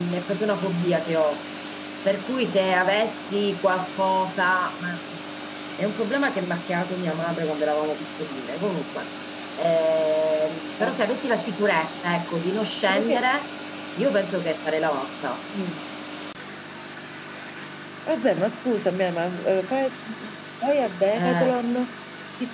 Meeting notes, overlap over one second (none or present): none